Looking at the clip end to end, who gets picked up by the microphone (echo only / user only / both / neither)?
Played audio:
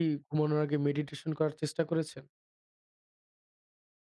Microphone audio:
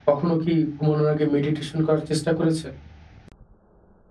echo only